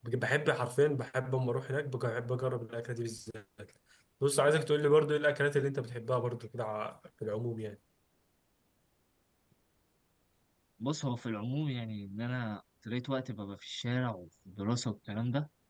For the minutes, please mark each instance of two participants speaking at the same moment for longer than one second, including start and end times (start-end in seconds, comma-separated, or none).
none